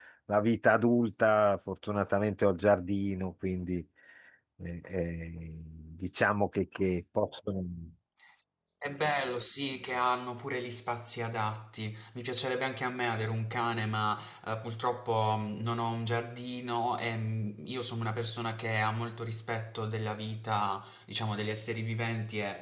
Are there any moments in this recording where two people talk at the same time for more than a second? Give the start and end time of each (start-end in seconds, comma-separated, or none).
none